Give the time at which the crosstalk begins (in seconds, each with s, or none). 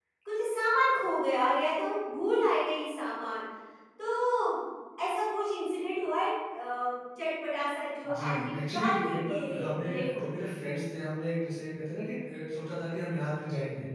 8.0 s